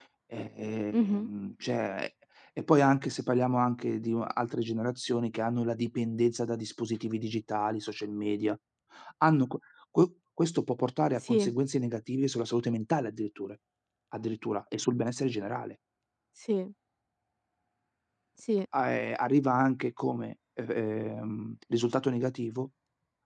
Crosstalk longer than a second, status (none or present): none